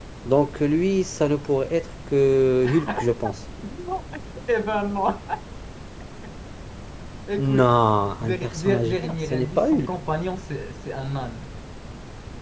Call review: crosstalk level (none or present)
present